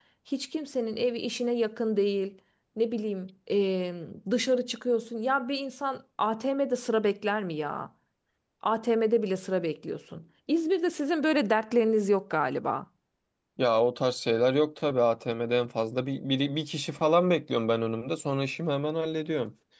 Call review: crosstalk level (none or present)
none